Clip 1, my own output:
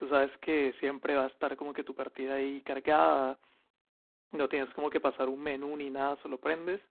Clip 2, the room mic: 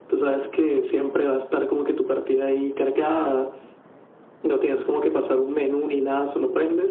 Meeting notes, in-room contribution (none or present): none